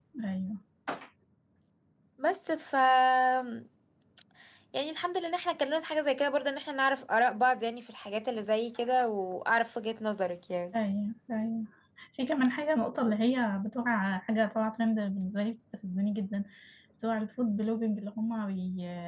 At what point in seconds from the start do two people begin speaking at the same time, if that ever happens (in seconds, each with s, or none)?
none